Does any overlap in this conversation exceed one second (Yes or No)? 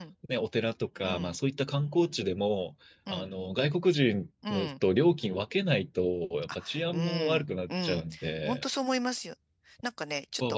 Yes